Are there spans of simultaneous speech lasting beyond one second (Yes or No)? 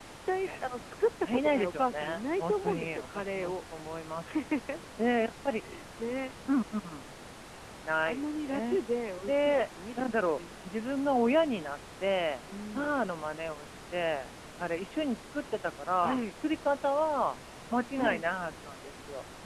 Yes